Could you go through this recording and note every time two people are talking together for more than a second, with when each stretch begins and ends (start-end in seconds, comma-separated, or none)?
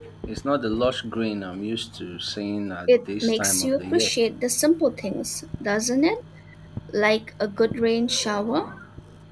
2.9-4.1